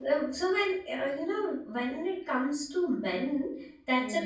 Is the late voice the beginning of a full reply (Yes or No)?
No